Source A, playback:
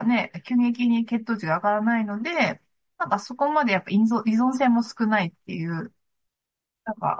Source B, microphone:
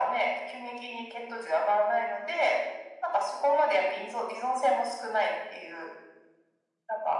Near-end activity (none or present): none